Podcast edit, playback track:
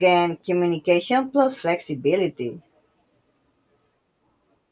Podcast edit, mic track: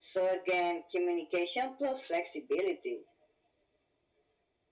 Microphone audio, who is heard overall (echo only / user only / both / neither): echo only